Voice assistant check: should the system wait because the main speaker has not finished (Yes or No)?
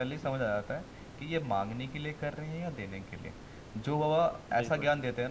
Yes